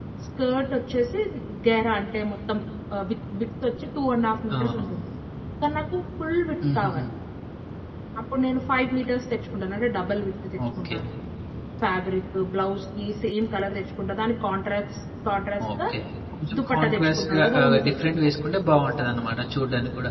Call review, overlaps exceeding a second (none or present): present